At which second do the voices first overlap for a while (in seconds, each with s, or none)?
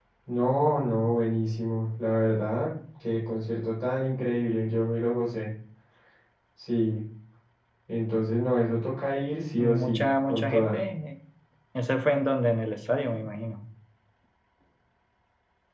9.6 s